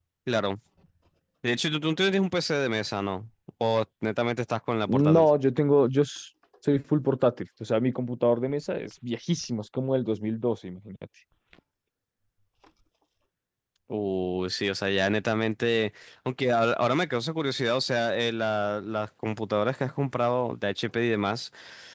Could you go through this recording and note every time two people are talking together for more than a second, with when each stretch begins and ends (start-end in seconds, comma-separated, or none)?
none